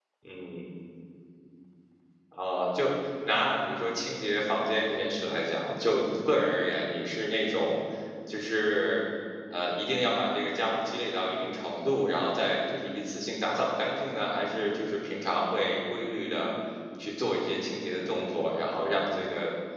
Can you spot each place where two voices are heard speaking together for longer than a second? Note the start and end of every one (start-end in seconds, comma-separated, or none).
none